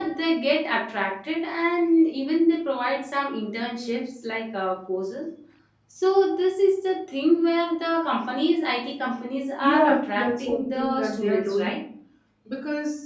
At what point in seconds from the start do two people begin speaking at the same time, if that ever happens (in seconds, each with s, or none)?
9.6 s